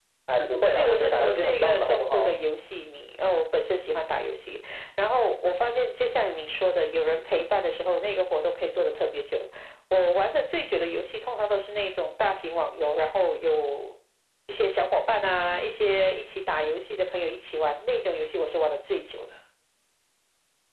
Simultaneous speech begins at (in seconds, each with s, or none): 0.7 s